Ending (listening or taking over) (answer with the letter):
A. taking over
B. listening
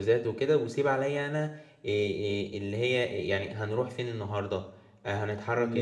B